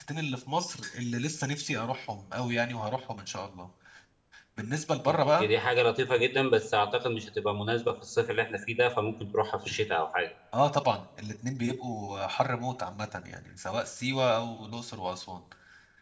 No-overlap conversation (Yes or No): Yes